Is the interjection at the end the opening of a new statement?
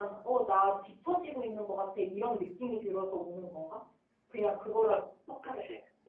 Yes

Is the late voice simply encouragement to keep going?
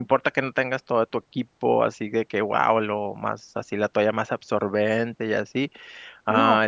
Yes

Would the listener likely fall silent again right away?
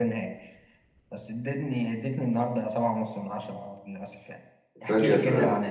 Yes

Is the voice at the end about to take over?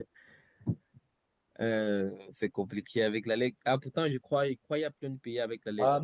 Yes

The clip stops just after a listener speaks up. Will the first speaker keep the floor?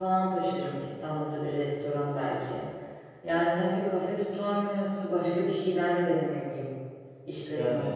No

